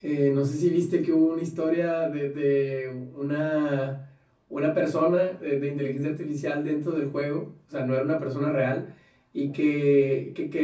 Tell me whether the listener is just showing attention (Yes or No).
Yes